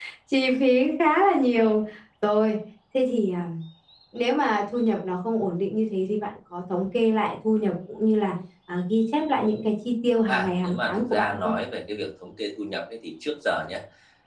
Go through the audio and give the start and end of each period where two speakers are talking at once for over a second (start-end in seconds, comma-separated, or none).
10.3-11.5